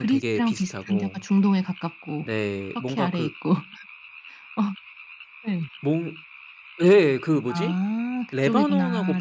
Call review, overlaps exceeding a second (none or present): present